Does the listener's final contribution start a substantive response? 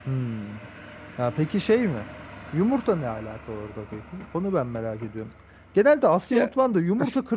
No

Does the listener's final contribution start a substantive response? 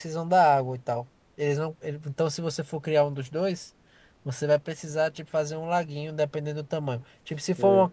No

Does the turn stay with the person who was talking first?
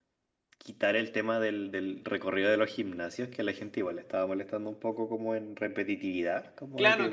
No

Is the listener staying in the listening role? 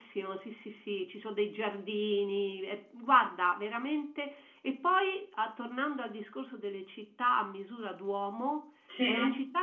Yes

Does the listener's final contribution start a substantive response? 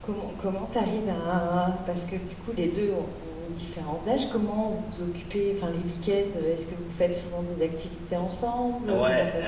Yes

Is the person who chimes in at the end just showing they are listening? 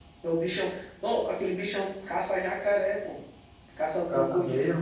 Yes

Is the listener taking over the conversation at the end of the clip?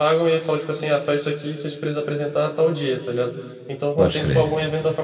No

